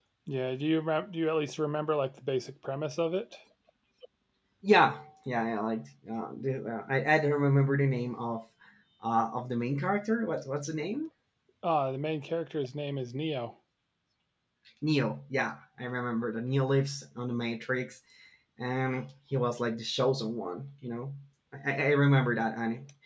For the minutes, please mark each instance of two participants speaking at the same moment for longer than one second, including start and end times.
none

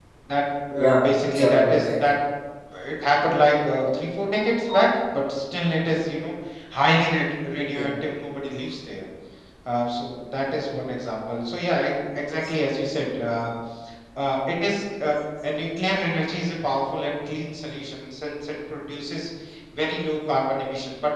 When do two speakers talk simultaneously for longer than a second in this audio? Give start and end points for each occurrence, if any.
0.8-2.1

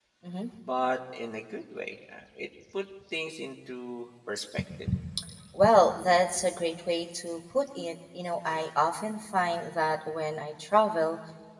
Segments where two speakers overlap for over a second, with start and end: none

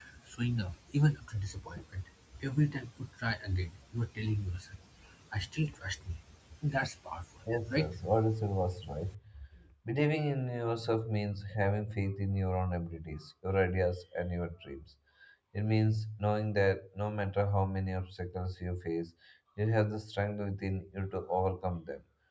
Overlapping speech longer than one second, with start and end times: none

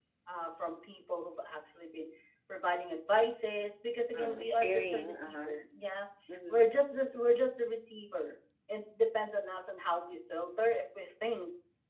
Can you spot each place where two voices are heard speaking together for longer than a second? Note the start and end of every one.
4.1-5.5

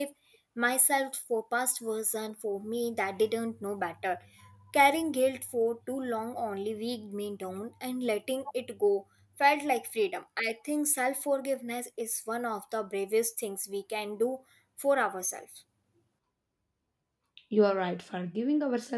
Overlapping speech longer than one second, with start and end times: none

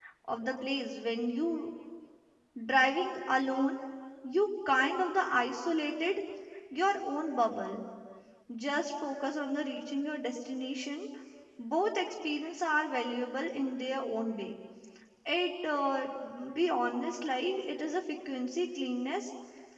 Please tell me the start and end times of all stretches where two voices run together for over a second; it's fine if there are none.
none

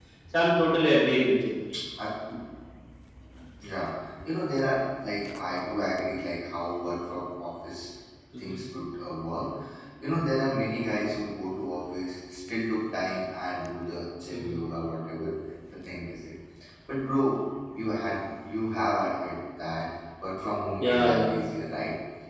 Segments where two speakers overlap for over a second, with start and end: none

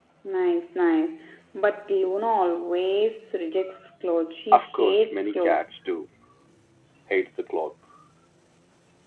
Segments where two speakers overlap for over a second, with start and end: 4.5-5.7

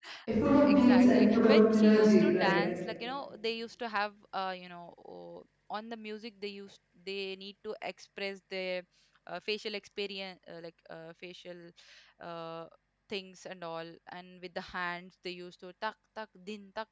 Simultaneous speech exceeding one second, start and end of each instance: 0.7-2.6

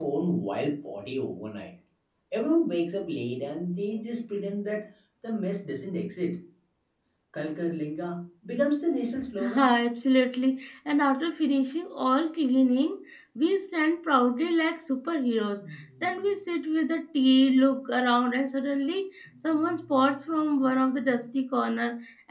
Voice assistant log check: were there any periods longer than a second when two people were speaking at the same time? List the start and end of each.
none

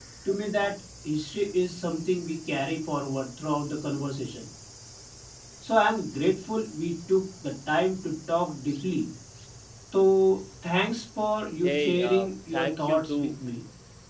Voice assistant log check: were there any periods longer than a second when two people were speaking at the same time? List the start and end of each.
11.6-13.3

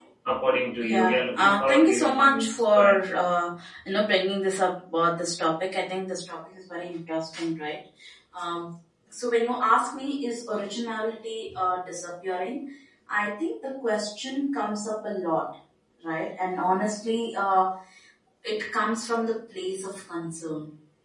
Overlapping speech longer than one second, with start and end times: 0.8-3.0

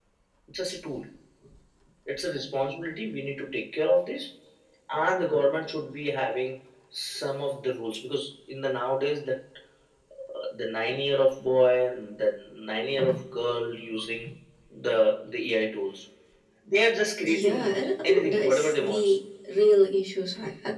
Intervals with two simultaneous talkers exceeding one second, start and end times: 17.2-19.2

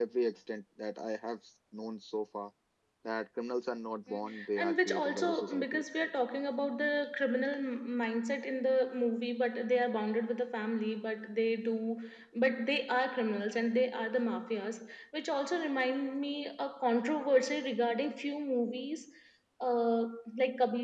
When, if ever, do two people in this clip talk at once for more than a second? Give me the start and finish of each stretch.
4.1-6.1

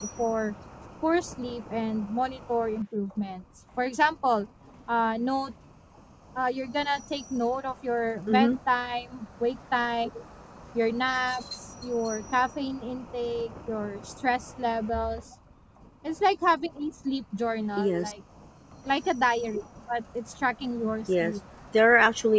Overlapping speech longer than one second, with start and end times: none

